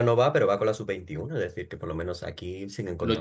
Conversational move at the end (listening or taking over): taking over